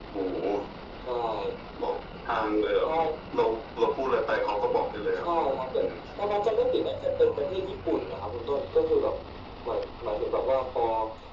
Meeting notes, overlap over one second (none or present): none